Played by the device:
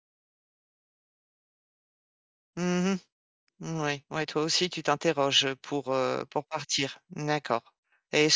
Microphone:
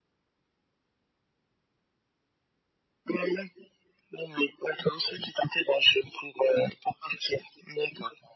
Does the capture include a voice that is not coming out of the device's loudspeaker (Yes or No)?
No